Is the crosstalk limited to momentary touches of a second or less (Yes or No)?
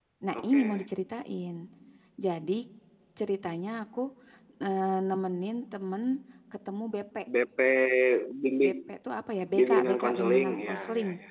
No